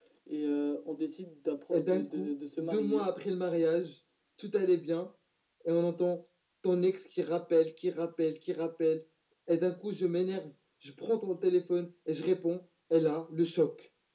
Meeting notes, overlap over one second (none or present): present